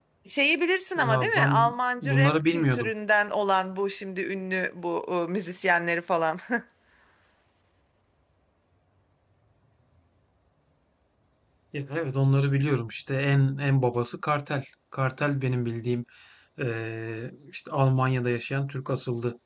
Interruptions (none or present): present